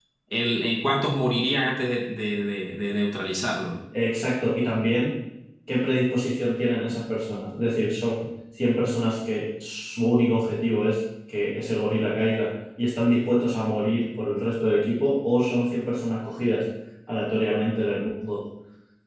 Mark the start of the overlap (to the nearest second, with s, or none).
none